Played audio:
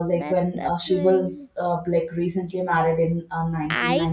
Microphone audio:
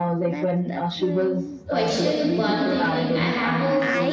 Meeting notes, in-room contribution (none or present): present